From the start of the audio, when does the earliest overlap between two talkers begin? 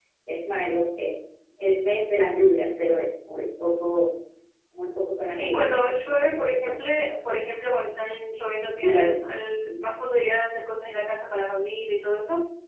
5.4 s

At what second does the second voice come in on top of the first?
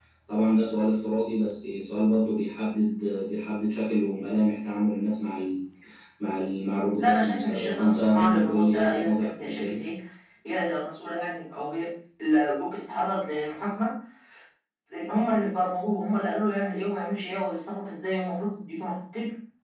7.0 s

